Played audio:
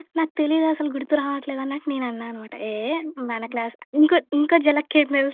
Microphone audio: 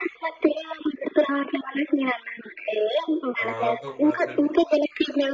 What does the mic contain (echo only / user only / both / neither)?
both